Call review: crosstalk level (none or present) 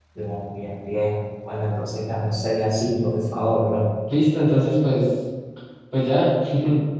none